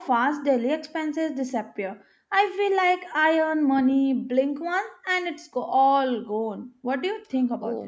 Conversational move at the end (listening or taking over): taking over